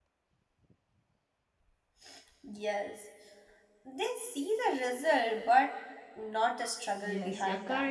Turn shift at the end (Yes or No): Yes